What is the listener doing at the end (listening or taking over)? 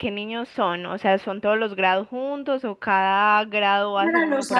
taking over